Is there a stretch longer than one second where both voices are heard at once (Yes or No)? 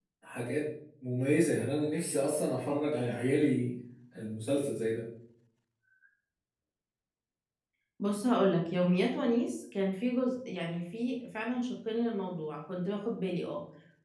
No